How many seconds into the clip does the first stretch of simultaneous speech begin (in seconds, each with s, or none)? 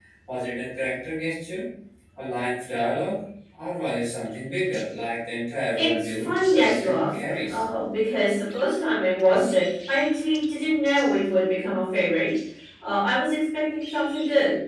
5.8 s